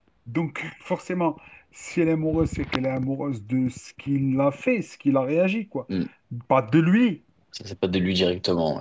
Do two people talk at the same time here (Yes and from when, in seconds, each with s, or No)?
No